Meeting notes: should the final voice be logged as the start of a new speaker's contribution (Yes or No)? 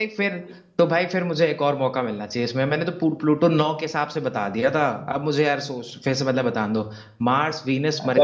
Yes